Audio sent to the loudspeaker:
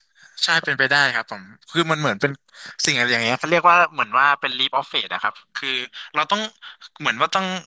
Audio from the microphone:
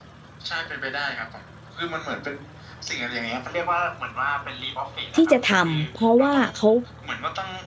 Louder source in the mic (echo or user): user